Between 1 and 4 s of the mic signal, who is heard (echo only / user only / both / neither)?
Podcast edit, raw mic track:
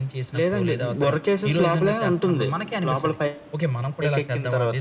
echo only